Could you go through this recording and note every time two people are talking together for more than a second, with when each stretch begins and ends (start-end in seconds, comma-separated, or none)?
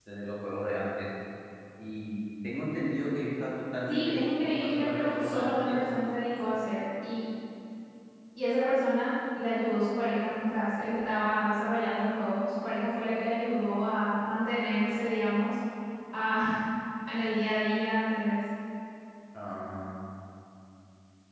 3.9-5.9